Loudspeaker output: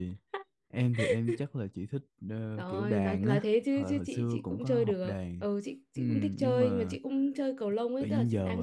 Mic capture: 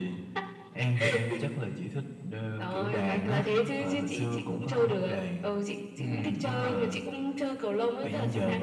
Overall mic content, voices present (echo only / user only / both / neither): echo only